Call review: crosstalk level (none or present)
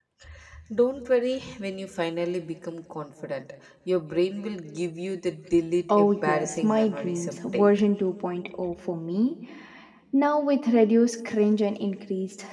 present